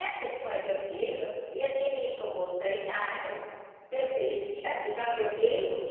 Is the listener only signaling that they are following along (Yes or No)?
Yes